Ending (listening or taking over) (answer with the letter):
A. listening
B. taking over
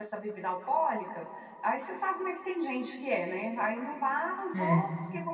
A